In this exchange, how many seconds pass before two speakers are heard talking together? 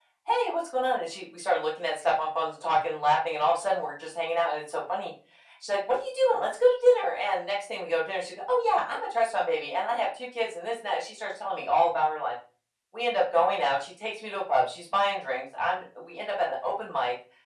none

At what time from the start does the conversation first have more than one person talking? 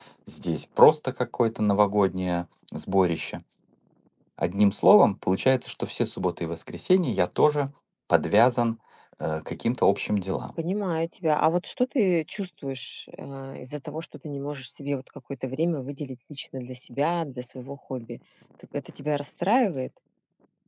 none

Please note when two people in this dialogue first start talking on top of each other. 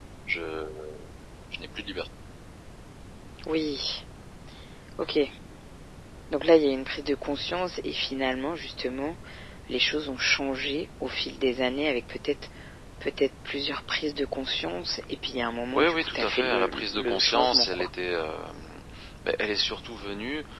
15.7 s

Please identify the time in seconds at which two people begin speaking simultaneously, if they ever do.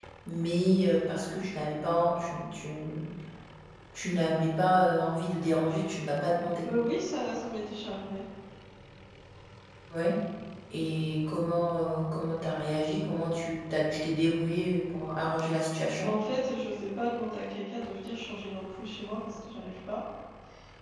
none

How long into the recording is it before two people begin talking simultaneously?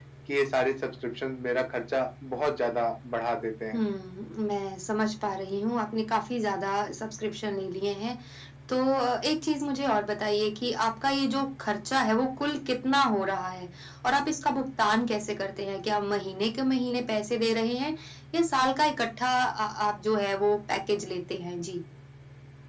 none

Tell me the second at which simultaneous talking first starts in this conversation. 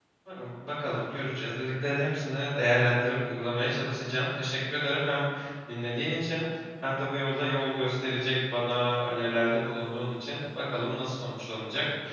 none

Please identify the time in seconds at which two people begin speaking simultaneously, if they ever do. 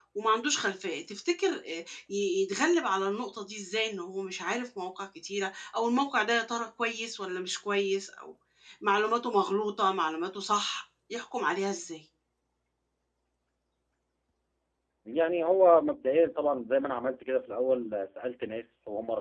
none

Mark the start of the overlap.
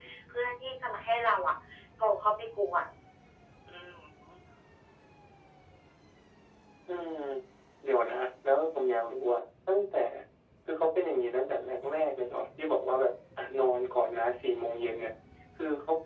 none

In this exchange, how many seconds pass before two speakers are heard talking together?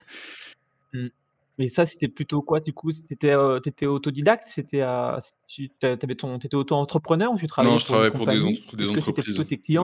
7.6 s

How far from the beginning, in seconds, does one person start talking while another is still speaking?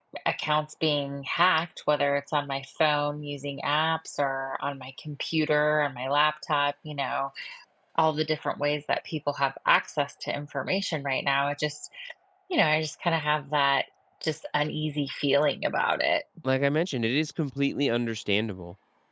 none

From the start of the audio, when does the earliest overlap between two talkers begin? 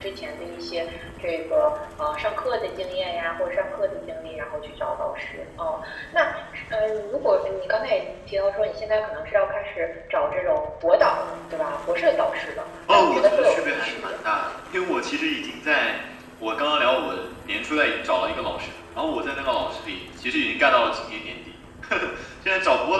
12.9 s

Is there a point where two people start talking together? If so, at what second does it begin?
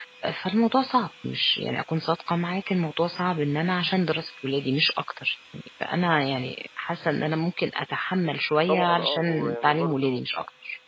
8.7 s

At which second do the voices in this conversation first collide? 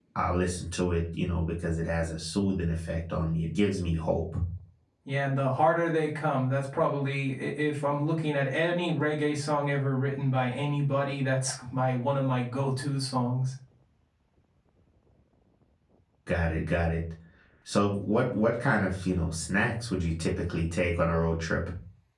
none

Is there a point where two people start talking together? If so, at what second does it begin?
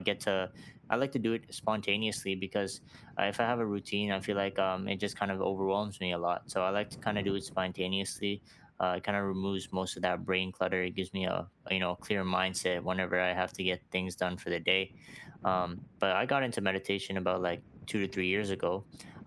none

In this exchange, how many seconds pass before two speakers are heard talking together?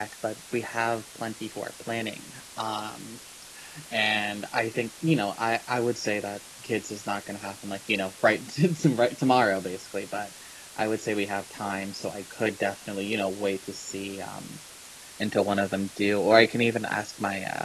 none

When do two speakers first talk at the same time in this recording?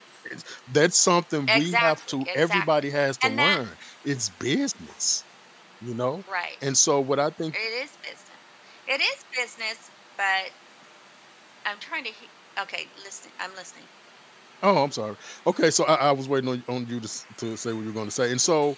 1.5 s

